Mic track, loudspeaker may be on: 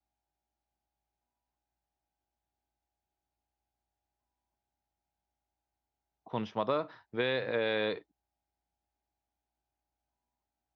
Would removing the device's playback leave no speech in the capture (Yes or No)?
No